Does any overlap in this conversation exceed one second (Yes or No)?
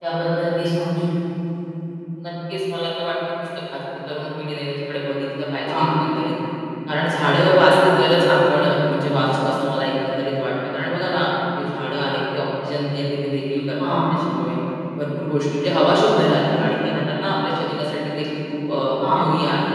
No